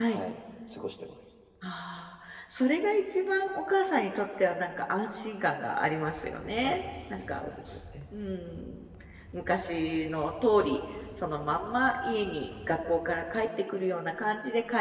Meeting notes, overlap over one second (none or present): none